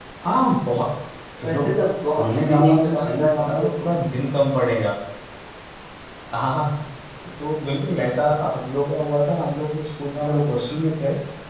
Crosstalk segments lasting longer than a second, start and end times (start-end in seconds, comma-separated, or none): 2.2-3.7